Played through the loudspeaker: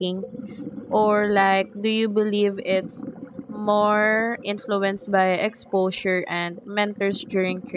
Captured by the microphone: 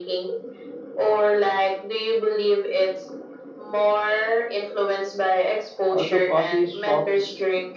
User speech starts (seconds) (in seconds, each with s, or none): 5.9 s